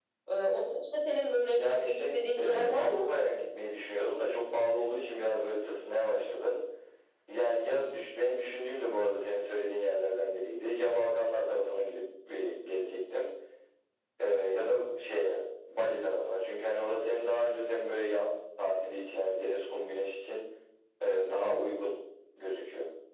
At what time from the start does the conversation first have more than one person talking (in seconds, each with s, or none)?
1.5 s